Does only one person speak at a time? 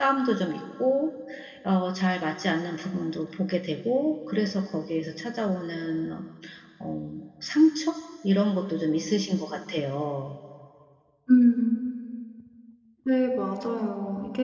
Yes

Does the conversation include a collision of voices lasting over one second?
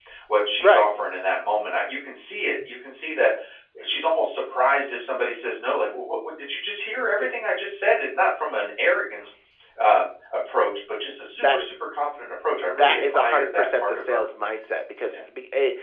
Yes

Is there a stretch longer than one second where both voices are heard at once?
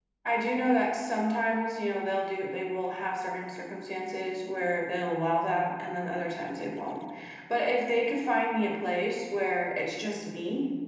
No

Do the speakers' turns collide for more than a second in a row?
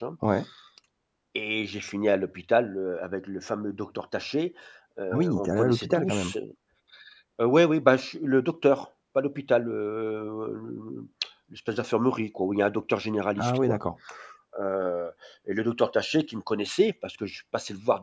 Yes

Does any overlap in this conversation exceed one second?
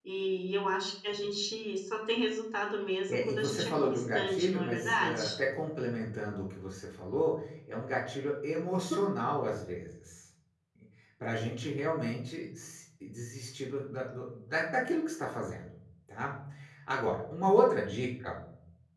Yes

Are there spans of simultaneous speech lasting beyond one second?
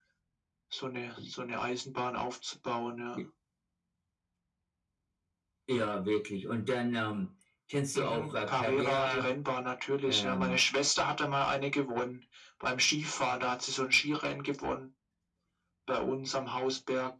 Yes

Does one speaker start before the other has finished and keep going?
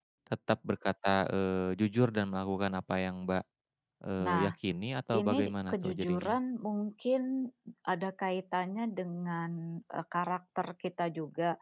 Yes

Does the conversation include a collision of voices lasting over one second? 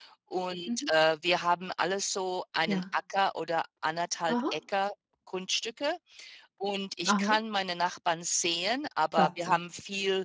No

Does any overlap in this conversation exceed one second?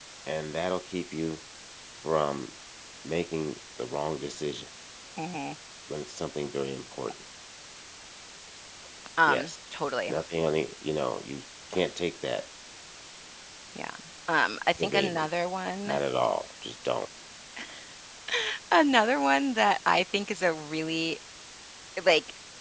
No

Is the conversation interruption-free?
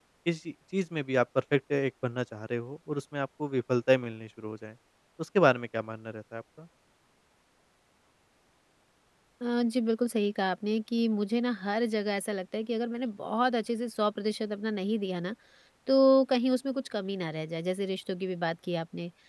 Yes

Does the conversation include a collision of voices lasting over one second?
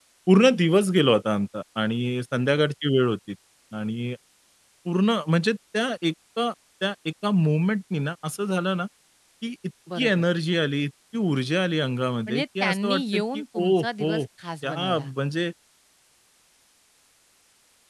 Yes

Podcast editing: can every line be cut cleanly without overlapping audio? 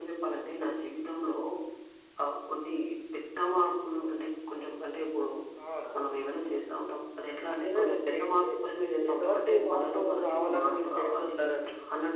No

